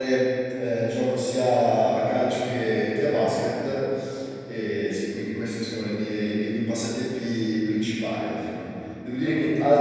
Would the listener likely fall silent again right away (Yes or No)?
Yes